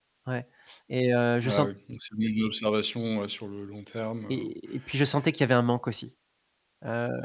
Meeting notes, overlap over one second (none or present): none